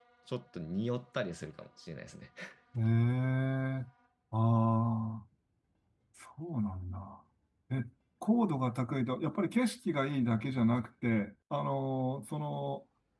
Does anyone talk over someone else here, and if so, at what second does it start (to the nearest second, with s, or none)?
none